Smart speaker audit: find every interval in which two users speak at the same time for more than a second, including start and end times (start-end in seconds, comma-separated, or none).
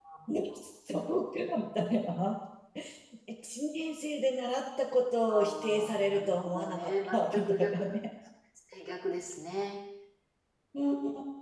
5.3-7.9